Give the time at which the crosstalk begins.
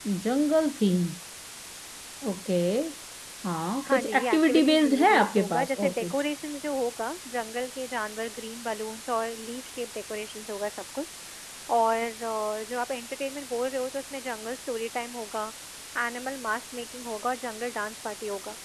3.9 s

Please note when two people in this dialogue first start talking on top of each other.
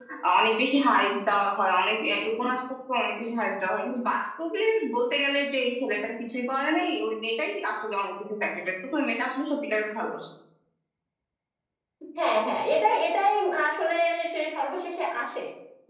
none

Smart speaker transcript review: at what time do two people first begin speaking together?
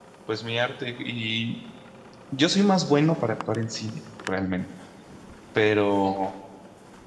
none

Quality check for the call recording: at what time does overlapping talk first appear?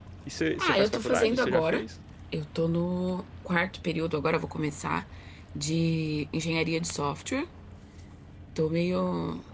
0.6 s

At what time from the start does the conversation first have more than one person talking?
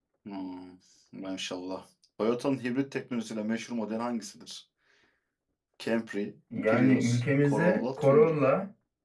6.7 s

